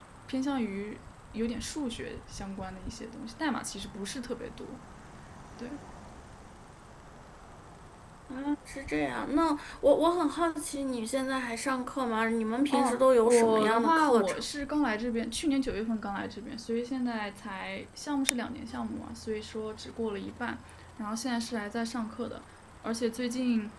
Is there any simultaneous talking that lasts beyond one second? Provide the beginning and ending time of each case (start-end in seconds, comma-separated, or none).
12.7-14.4